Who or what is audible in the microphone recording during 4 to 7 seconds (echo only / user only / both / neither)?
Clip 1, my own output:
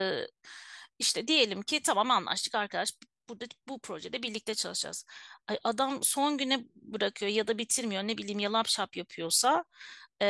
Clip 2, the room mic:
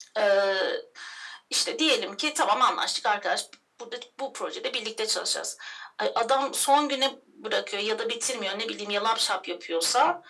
echo only